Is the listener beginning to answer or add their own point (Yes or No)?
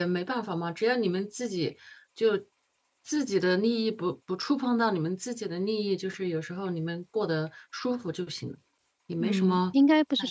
Yes